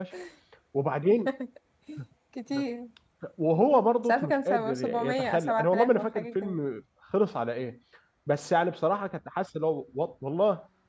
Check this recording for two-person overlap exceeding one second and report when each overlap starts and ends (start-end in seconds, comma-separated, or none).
4.1-6.6